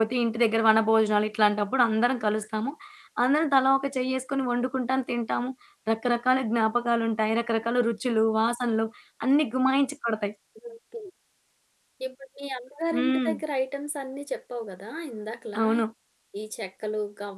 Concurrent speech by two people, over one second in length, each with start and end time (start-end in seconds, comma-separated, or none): none